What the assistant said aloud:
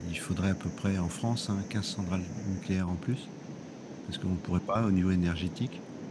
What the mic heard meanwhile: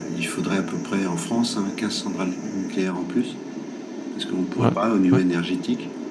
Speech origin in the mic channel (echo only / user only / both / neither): both